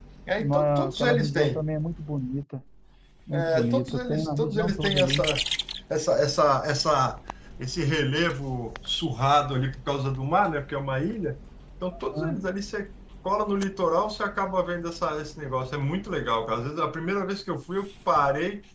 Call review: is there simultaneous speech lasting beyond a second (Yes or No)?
Yes